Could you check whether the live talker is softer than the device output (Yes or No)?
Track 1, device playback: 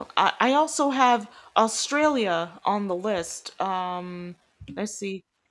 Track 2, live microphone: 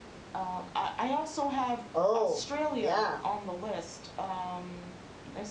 No